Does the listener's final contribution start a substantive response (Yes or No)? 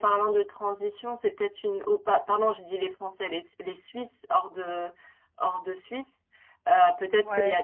No